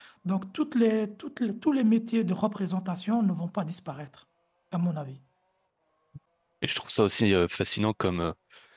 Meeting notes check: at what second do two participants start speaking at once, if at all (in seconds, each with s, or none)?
none